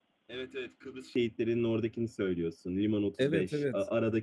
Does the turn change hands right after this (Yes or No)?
No